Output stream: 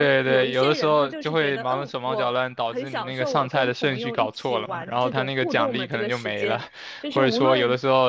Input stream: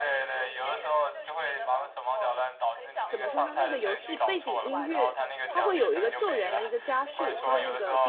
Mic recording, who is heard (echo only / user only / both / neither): both